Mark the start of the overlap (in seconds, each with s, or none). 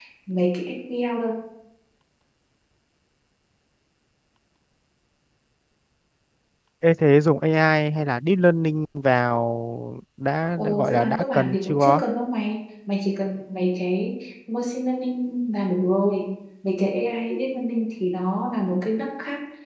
10.6 s